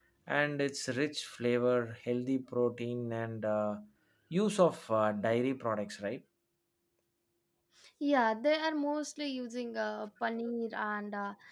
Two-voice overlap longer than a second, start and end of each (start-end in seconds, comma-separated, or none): none